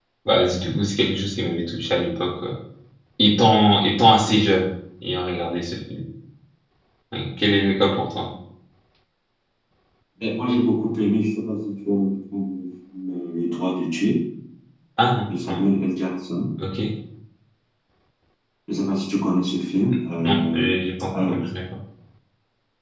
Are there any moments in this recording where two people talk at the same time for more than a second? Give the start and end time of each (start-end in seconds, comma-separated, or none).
none